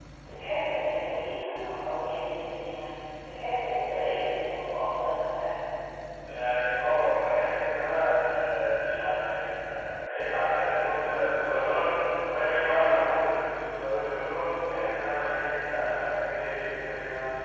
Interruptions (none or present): none